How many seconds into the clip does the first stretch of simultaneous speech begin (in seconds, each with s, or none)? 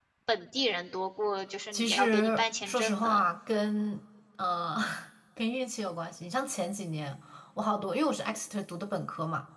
1.7 s